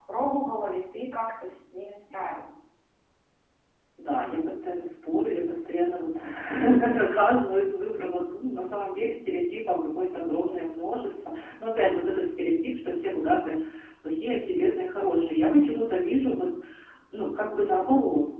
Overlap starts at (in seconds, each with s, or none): none